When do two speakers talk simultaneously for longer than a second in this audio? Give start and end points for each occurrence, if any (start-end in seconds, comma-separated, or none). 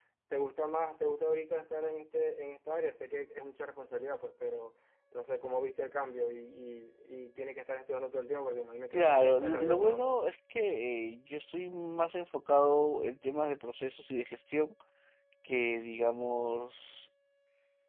8.9-10.2